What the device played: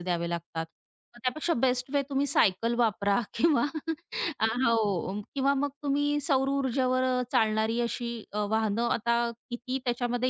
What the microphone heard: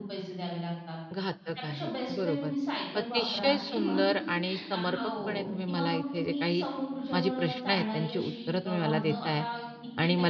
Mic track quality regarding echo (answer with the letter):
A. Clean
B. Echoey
B